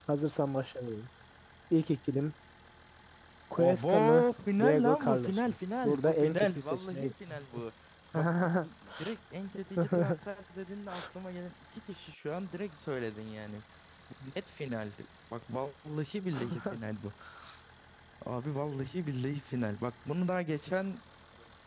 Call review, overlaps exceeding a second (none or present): present